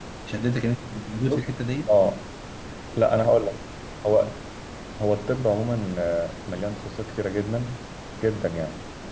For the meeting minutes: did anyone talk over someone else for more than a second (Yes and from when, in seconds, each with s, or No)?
No